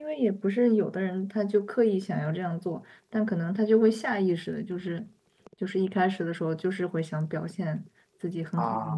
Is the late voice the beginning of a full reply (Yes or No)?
No